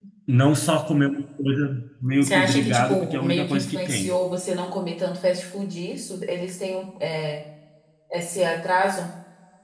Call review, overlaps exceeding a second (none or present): present